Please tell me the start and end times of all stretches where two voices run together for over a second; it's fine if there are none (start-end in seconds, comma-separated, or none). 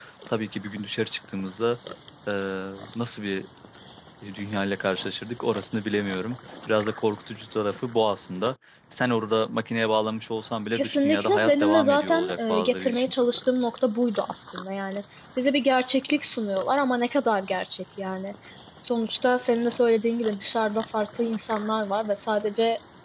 10.8-13.1